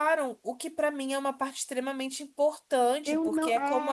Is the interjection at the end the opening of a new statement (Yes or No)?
Yes